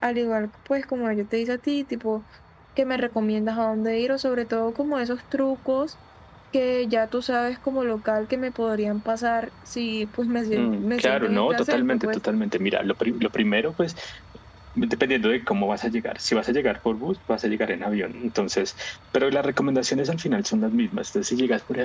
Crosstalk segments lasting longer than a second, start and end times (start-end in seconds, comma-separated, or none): 10.5-12.2